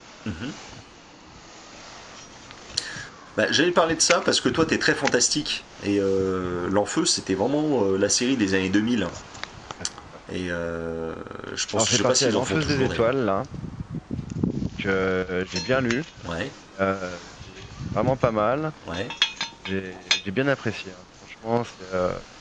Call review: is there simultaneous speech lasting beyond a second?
Yes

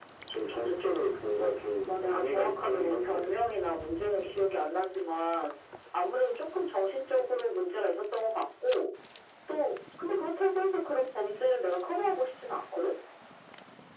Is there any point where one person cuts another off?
Yes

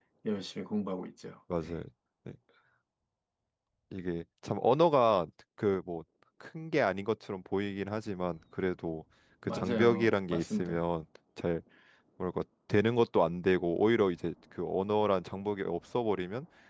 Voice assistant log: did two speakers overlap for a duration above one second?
Yes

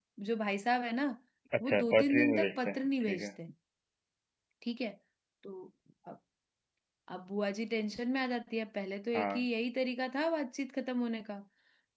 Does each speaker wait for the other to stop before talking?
No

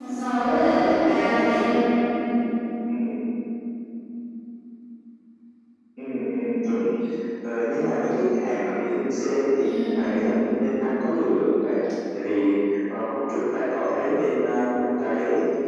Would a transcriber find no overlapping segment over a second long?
Yes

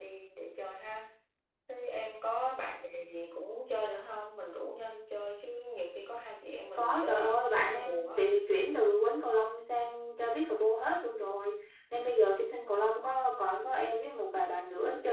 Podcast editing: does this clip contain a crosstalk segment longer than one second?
Yes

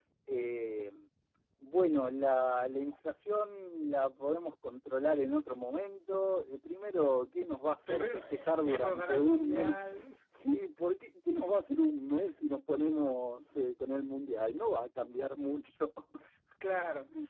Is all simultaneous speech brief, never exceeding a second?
No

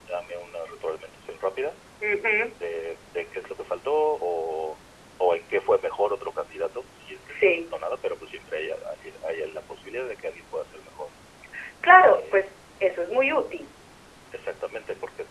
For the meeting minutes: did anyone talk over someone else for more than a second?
No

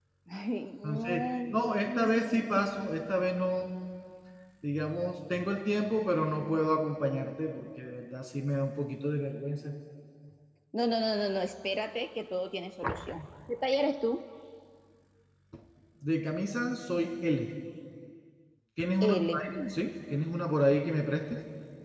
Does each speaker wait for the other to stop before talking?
No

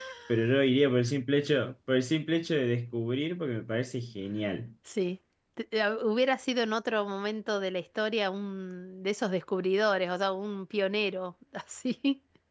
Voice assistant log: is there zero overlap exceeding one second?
Yes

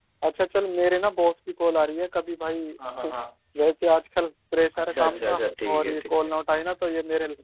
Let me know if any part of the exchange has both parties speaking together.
Yes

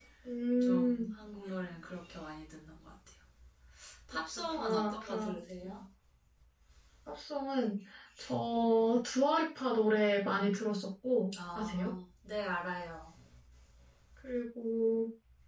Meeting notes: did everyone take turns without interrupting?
No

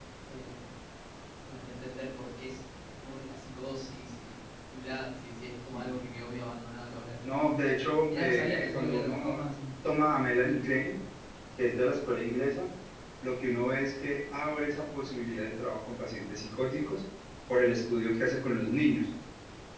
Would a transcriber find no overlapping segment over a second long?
No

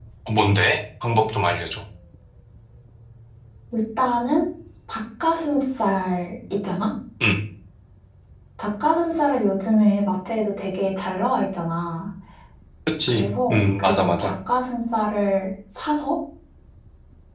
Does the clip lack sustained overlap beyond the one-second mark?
No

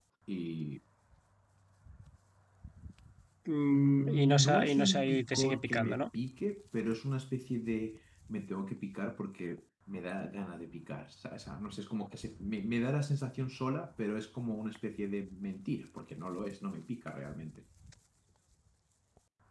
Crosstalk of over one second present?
Yes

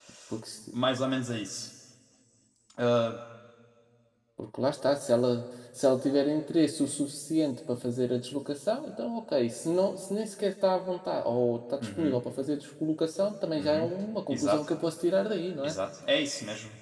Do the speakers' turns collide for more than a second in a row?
No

